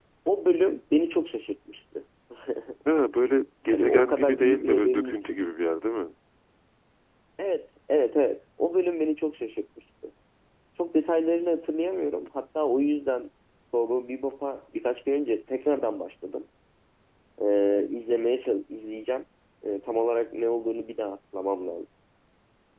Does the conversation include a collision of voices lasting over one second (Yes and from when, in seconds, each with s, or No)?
Yes, from 3.7 s